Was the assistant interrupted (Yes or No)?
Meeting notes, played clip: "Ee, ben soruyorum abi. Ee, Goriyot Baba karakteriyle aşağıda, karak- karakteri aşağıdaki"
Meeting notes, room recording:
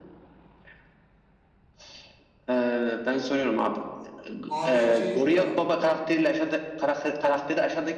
Yes